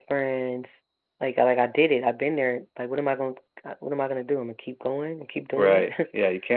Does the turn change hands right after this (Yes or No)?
Yes